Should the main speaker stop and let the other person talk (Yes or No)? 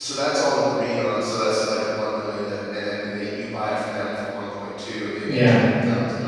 No